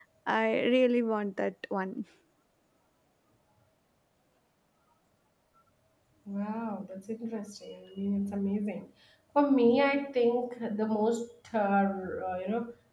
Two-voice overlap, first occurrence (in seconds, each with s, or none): none